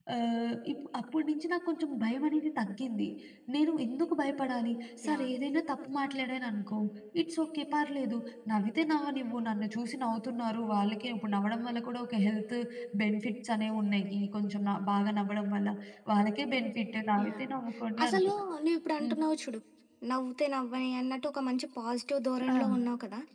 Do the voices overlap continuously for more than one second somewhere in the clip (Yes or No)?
No